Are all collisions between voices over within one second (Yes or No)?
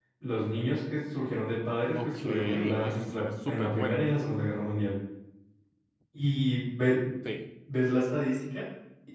No